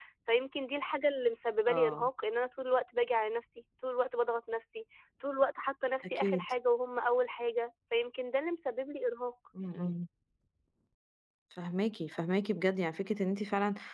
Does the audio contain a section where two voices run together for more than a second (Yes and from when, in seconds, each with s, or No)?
No